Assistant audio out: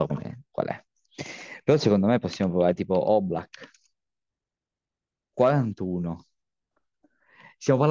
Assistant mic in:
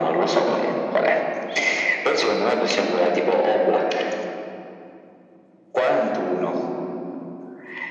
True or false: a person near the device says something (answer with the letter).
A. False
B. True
A